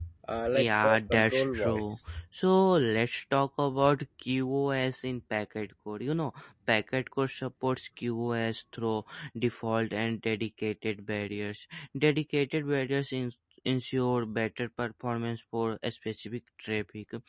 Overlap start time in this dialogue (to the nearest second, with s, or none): 1 s